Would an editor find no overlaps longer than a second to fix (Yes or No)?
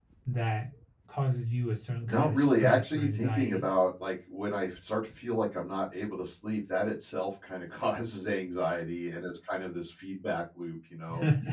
No